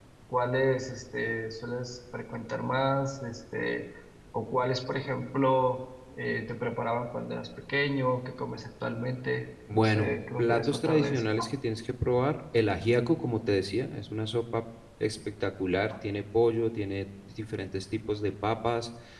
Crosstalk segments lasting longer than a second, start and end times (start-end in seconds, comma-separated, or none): 9.7-11.3